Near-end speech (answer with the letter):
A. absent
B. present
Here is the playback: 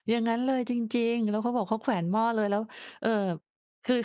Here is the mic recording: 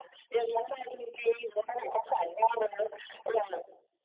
A